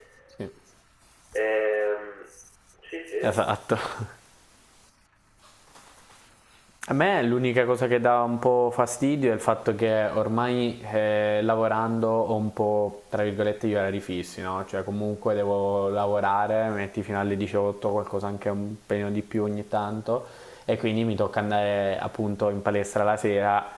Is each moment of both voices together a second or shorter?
Yes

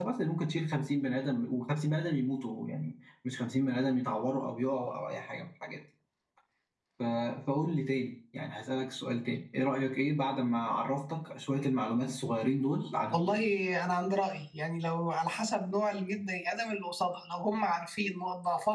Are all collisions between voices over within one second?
Yes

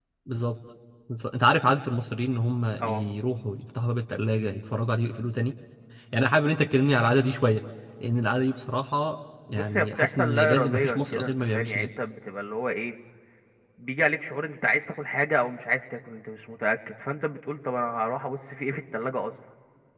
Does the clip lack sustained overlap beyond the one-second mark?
No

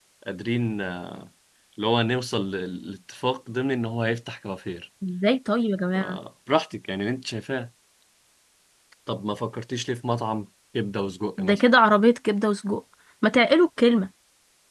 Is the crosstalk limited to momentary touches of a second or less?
Yes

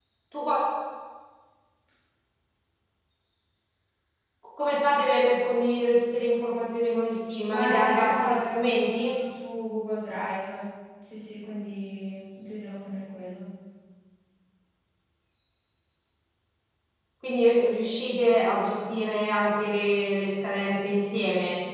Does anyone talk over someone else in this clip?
Yes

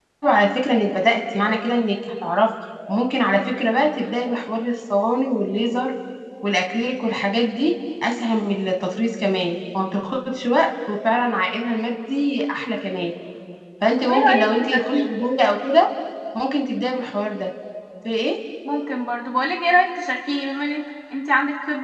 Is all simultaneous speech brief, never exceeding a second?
No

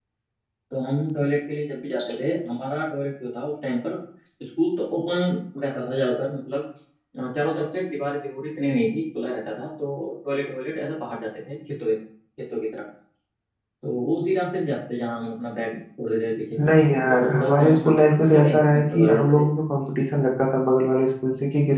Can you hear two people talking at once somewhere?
Yes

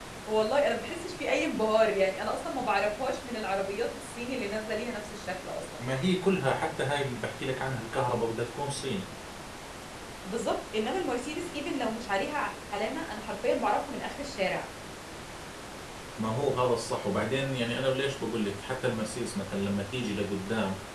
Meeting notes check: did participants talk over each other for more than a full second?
No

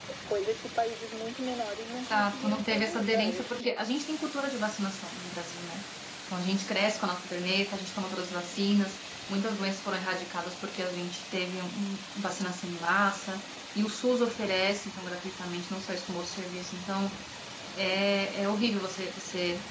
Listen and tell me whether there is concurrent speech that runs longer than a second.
Yes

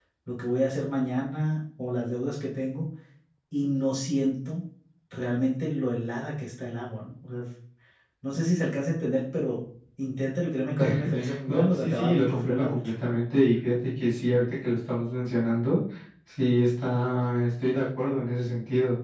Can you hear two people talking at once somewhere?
Yes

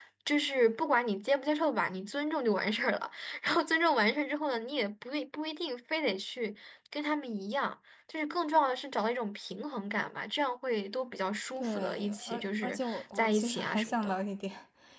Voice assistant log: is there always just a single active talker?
No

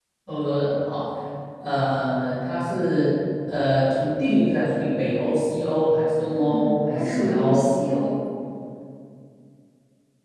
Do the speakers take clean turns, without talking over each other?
No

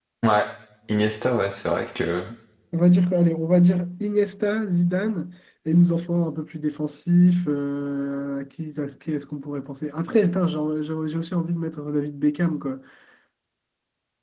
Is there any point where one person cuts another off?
No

